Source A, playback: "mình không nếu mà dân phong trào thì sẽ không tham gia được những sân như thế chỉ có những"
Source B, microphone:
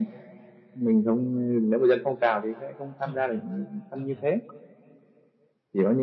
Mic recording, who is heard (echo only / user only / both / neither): both